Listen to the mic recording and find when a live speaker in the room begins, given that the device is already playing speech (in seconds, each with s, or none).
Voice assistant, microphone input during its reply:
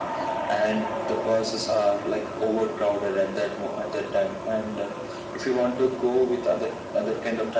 none